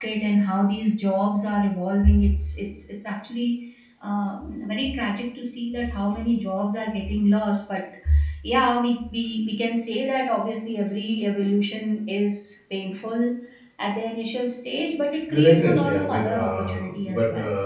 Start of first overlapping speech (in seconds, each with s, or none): 15.3 s